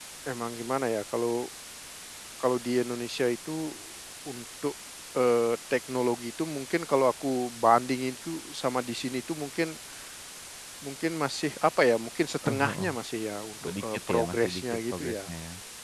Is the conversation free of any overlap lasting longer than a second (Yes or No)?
No